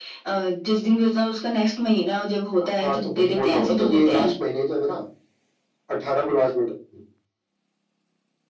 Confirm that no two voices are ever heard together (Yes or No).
No